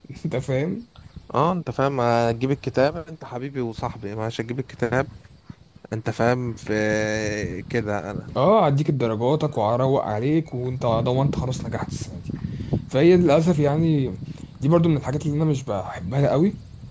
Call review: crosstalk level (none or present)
none